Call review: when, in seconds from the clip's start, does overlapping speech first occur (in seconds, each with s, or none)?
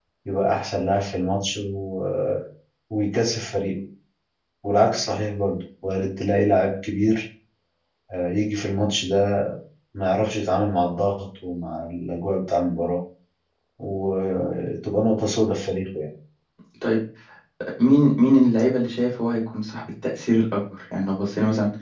none